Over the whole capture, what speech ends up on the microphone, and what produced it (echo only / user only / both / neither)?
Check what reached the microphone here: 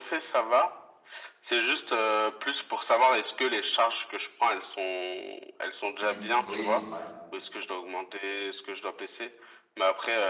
both